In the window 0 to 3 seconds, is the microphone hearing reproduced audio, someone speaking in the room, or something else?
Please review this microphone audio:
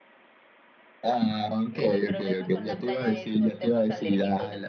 both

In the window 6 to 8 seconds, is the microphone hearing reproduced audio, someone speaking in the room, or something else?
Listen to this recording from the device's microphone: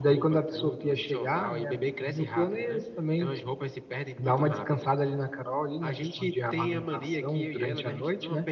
echo only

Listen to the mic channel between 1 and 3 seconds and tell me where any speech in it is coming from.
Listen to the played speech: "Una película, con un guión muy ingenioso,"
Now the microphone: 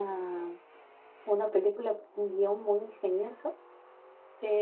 echo only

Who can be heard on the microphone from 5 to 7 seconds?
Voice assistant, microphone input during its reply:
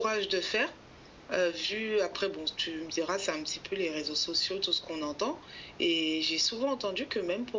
echo only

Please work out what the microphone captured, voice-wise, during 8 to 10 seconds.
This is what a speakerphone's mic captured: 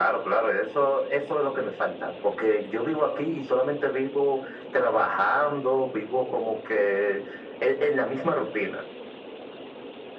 echo only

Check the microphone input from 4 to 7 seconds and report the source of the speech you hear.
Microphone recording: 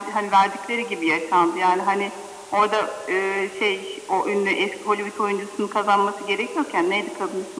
echo only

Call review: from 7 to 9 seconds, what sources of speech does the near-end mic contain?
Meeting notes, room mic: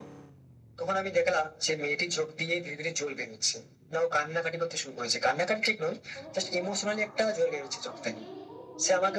both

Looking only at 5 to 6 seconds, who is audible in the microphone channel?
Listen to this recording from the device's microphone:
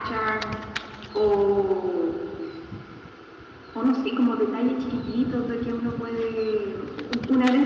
echo only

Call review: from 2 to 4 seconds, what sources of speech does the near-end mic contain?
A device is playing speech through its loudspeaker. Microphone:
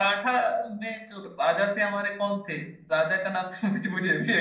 echo only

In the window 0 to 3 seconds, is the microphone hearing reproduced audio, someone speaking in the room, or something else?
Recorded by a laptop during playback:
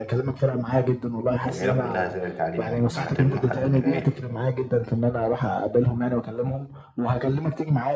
both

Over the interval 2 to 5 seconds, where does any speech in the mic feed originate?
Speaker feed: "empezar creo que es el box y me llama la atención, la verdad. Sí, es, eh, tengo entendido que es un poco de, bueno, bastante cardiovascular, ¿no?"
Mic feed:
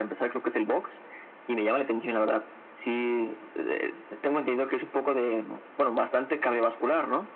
echo only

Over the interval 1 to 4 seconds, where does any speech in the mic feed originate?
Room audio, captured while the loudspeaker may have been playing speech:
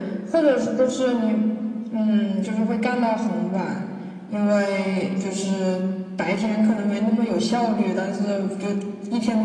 echo only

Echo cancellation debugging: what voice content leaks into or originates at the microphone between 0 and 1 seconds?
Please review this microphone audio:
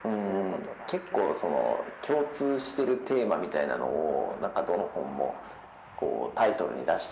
echo only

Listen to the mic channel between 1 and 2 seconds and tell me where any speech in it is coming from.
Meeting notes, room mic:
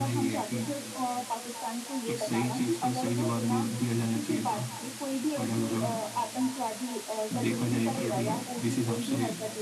echo only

